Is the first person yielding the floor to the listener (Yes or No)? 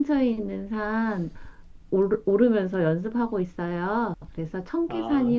No